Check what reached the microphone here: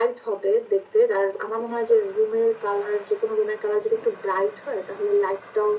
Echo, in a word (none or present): present